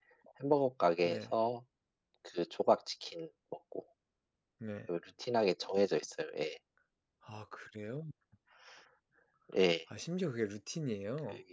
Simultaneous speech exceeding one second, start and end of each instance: none

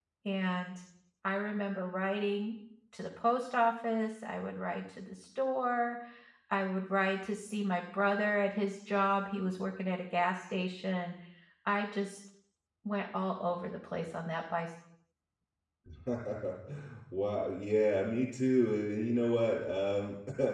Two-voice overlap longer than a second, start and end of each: none

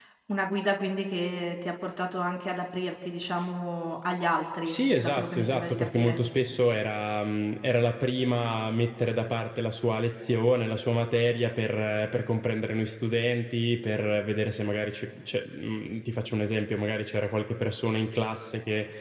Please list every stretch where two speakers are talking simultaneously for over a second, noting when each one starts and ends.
4.6-6.2

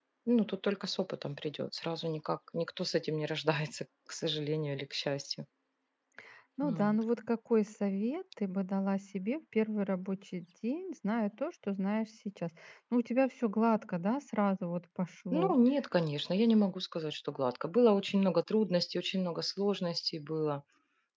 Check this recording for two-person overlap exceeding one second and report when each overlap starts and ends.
none

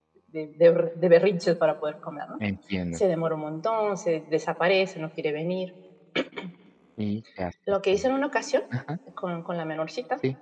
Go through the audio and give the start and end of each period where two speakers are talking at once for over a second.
none

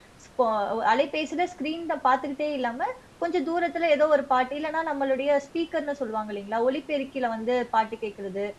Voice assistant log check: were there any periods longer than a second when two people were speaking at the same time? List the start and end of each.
none

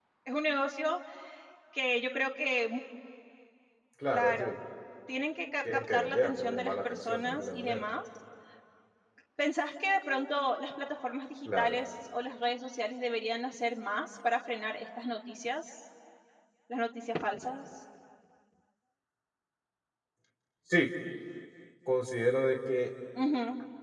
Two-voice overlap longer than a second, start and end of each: 5.7-7.8

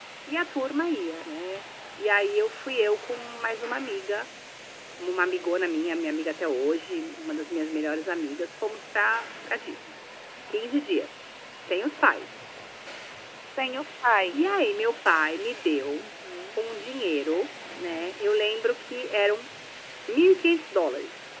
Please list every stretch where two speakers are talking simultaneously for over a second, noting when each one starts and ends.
none

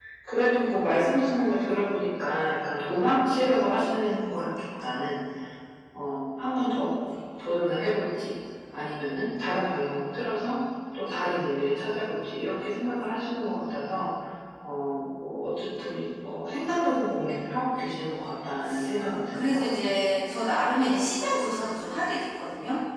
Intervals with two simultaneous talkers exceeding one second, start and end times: none

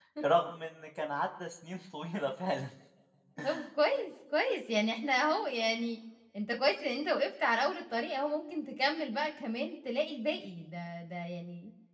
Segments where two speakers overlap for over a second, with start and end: none

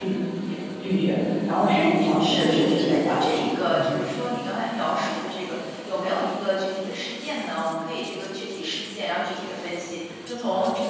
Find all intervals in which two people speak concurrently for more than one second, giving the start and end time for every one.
2.2-3.9

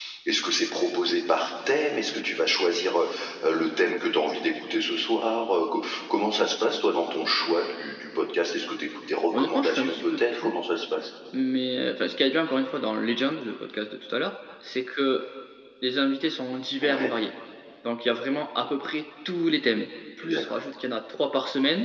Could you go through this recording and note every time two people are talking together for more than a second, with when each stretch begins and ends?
9.3-10.5

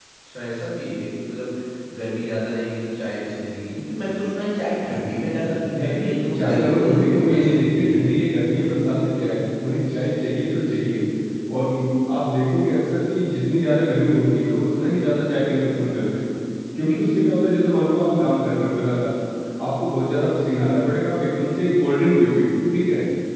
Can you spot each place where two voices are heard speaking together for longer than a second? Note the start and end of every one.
5.8-8.1

